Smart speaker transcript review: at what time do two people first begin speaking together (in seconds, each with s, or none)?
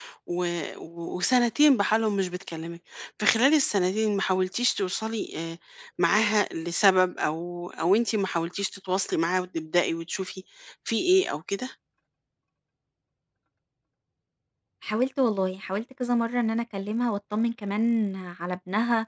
none